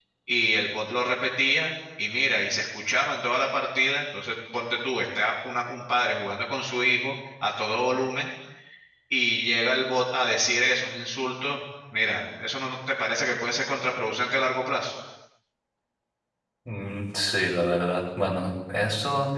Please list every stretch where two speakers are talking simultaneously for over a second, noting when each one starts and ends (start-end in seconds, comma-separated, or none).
none